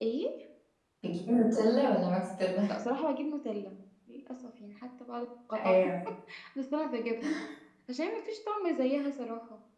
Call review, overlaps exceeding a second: none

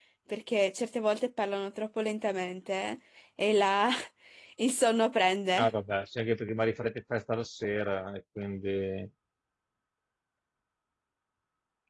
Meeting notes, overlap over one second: none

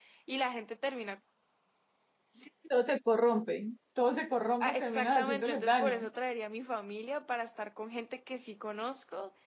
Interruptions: present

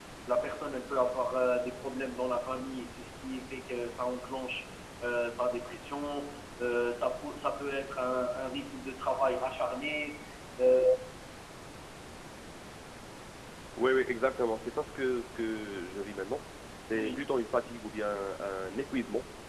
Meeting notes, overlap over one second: none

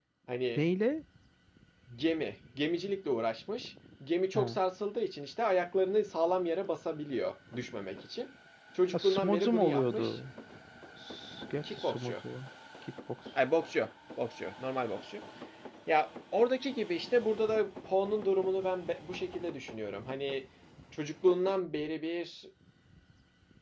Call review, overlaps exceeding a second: present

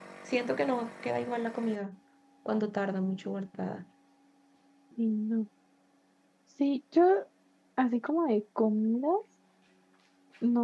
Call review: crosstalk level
none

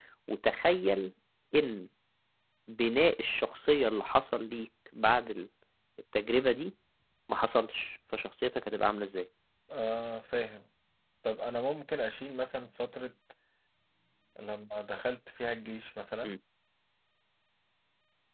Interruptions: none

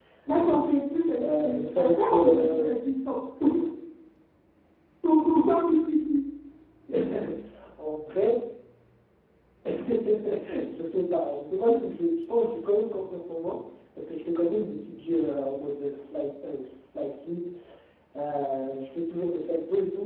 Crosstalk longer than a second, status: present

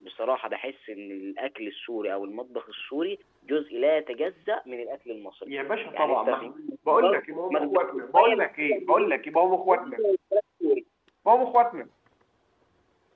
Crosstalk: present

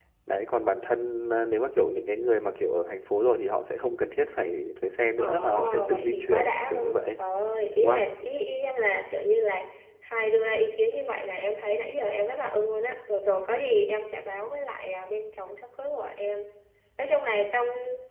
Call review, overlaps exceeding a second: present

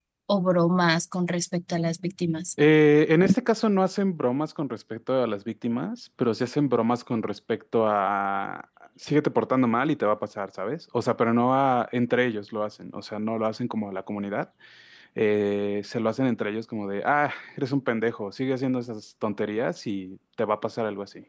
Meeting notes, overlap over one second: none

